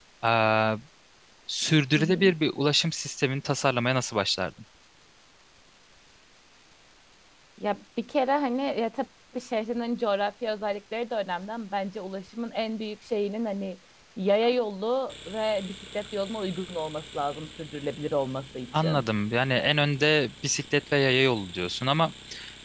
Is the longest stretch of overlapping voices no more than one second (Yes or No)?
Yes